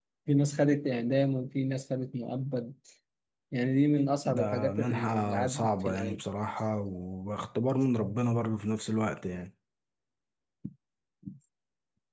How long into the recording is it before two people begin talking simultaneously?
4 s

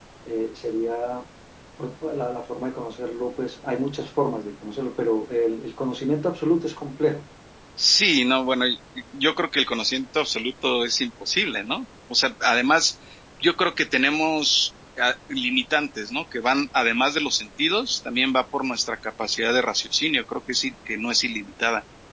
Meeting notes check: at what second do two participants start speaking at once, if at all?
none

